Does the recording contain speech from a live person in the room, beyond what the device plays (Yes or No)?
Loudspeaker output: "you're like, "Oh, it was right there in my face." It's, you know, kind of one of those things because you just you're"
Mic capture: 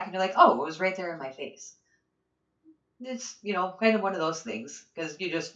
No